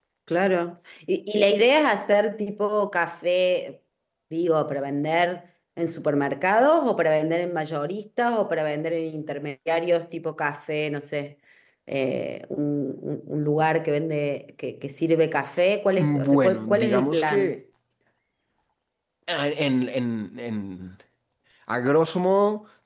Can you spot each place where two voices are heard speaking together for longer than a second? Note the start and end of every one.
16.0-17.5

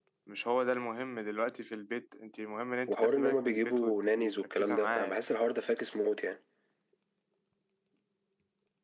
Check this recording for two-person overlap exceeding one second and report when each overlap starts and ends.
2.9-5.2

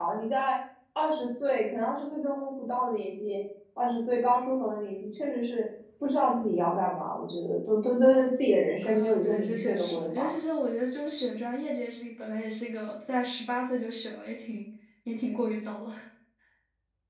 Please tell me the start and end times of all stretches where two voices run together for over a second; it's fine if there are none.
8.8-10.3

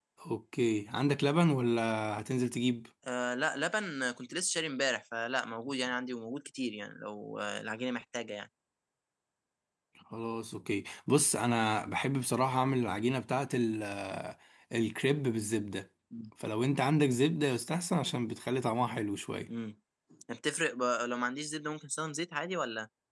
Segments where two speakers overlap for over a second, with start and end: none

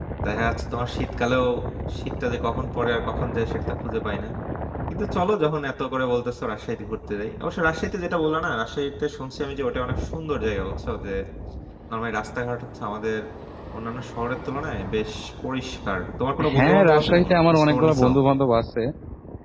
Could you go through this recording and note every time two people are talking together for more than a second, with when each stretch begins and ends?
16.5-18.1

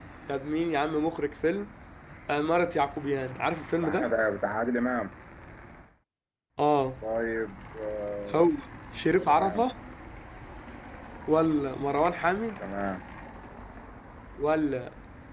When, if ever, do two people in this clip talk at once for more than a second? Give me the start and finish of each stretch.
none

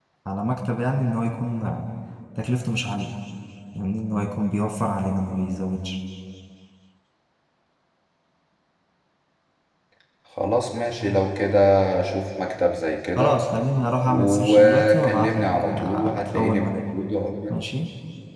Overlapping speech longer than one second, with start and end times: 14.1-16.7

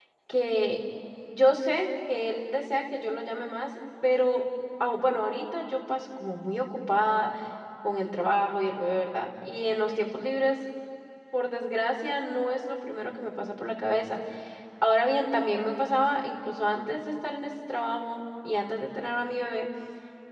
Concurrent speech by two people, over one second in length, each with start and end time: none

